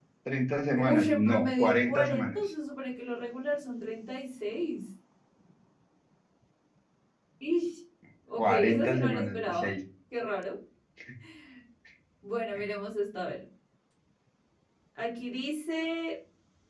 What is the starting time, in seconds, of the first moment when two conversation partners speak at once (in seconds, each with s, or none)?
0.8 s